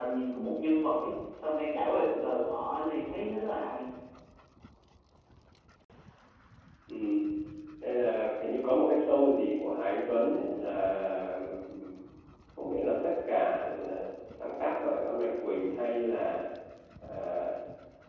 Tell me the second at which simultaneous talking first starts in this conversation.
none

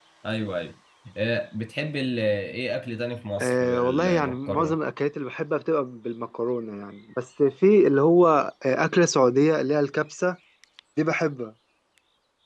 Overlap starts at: 3 s

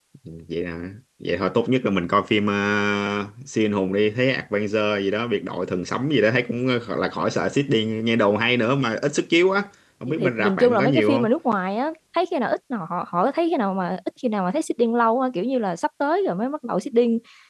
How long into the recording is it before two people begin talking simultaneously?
10 s

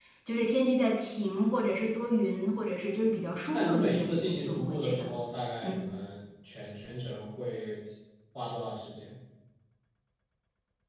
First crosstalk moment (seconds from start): 4 s

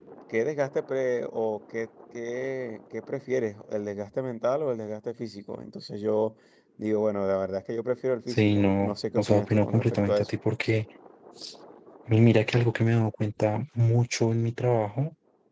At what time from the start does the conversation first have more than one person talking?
8 s

